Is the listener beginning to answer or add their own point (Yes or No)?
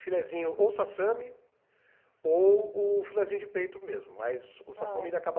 No